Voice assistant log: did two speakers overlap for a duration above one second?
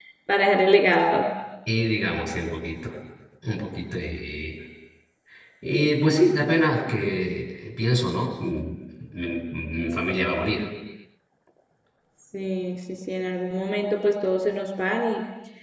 No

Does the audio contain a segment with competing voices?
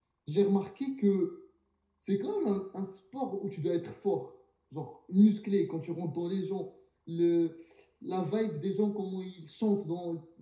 No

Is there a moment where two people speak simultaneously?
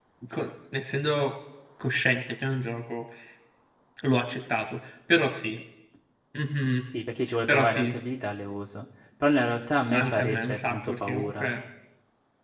Yes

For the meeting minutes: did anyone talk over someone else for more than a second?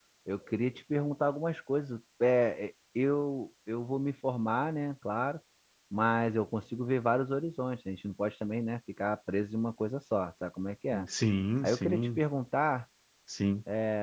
No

